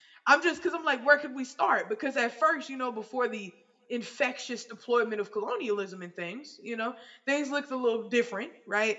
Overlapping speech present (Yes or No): No